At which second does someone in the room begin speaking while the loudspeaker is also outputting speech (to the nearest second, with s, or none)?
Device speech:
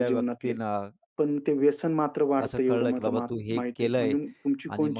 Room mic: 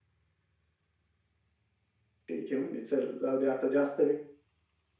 2 s